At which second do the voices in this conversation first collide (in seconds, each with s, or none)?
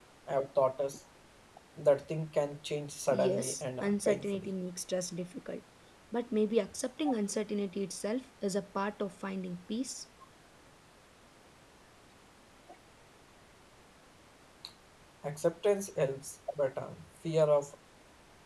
3.1 s